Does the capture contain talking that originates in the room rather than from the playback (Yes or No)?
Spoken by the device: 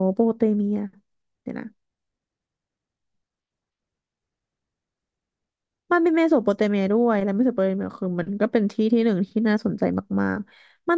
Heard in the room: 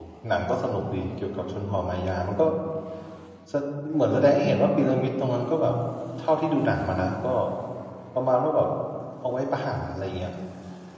Yes